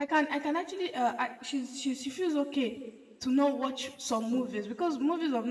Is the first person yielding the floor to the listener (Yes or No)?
No